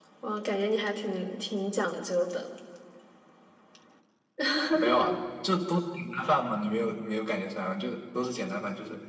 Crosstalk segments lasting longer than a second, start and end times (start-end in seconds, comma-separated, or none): none